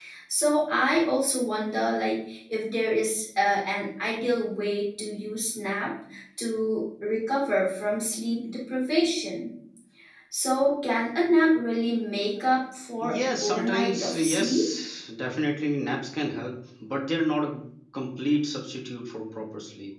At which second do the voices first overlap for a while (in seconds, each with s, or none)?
13.0 s